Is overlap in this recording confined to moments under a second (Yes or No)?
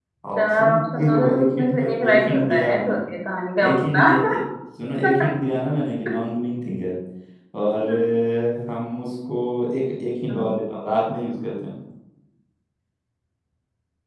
No